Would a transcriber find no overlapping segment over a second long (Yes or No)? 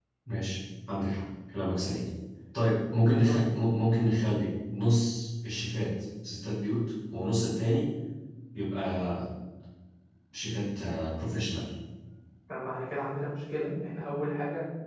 Yes